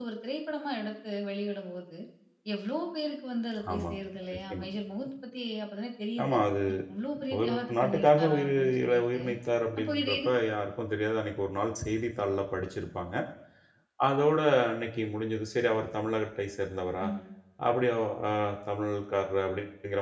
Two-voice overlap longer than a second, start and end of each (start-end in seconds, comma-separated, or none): 7.4-9.2